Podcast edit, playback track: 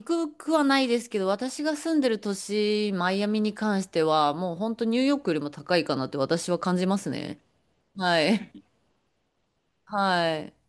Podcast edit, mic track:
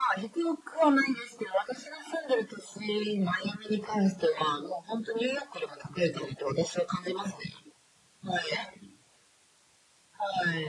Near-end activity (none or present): none